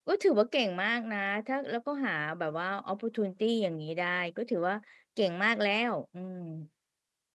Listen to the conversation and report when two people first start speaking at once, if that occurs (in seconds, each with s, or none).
none